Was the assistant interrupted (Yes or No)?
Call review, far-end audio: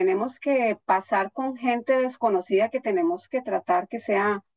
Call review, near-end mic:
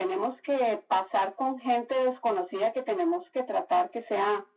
No